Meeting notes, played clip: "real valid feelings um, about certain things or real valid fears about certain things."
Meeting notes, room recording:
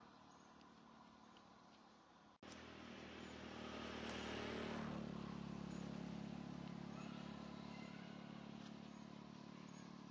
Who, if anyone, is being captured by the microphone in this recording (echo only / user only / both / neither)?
neither